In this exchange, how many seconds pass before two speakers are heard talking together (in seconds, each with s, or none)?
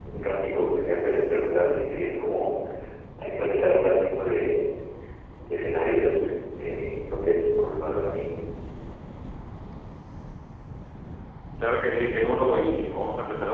none